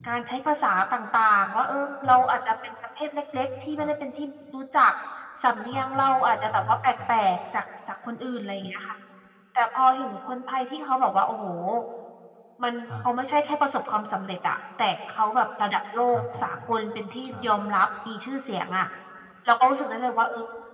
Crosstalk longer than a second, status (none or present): present